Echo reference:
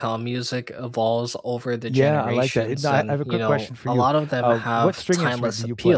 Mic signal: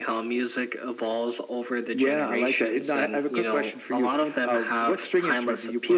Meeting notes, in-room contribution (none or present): none